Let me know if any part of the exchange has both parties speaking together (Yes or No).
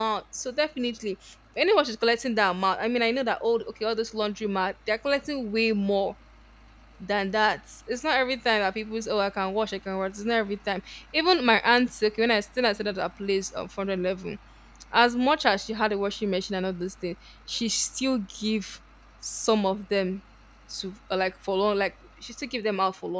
No